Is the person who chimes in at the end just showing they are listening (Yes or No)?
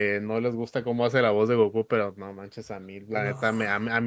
Yes